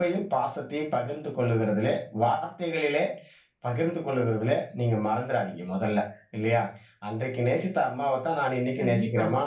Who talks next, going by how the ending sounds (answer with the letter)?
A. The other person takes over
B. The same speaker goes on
B